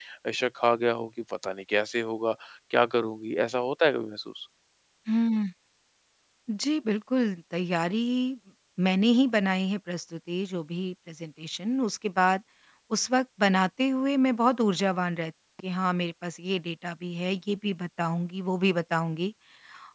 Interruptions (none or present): none